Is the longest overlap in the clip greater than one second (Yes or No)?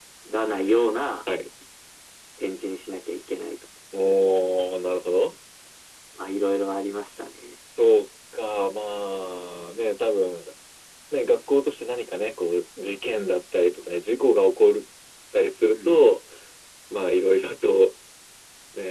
No